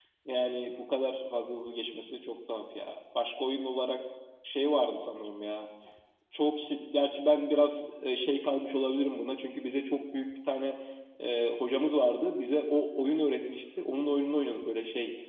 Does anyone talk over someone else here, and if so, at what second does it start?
none

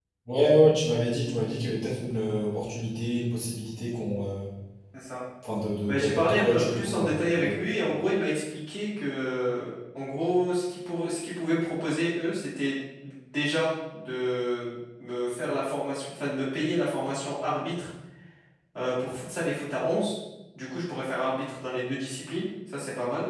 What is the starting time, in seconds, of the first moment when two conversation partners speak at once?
5.9 s

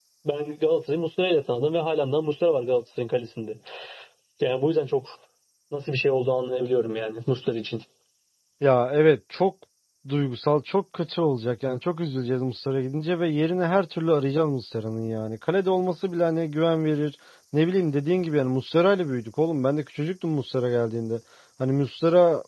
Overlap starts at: none

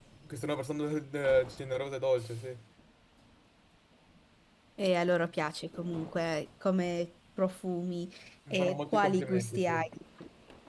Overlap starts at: 8.5 s

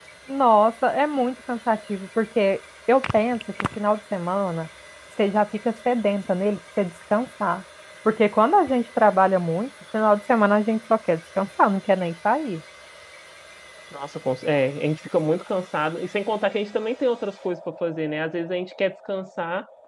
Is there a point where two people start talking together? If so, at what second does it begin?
none

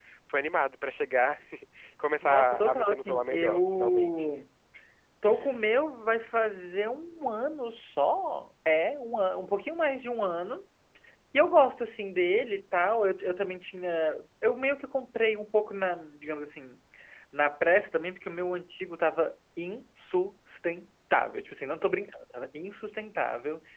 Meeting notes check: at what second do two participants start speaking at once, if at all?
2.2 s

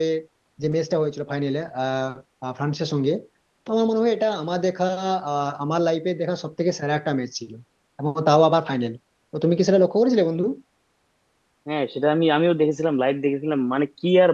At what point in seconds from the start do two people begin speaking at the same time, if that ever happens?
none

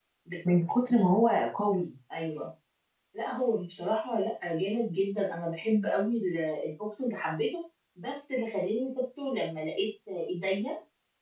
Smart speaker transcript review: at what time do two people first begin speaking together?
none

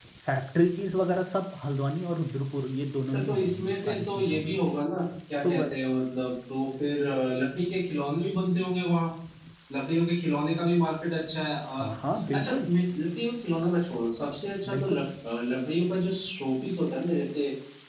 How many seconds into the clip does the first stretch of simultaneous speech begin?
3.1 s

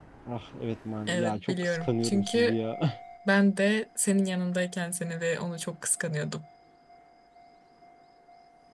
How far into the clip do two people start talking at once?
1.1 s

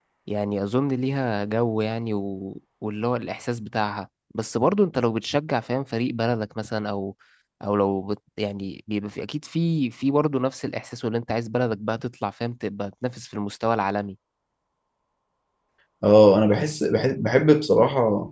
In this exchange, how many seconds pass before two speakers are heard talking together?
none

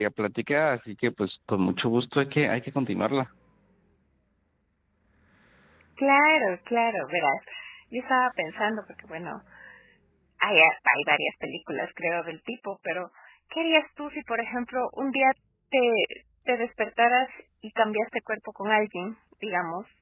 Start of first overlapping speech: none

